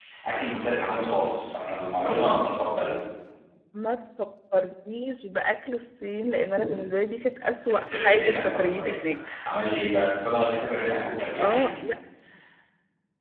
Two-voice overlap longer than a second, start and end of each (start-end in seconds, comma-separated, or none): 7.8-9.0